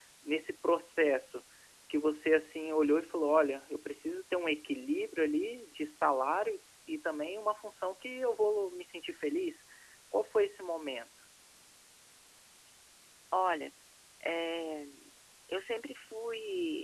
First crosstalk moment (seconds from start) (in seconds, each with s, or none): none